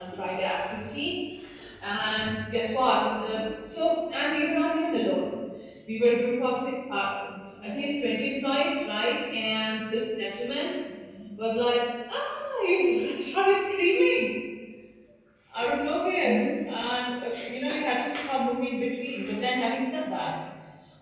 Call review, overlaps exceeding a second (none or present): none